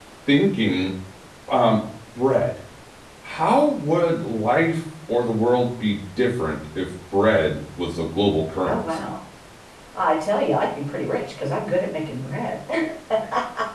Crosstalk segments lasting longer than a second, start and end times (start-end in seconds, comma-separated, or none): none